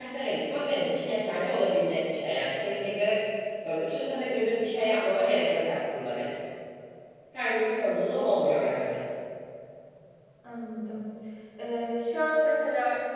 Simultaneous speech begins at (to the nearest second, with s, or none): none